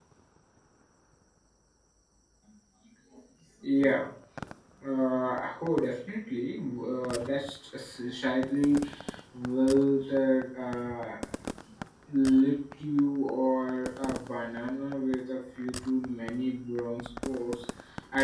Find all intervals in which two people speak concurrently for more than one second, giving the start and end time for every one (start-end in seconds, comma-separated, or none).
none